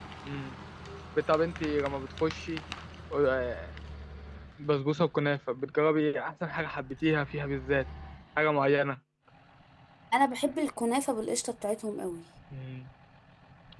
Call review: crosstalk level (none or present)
none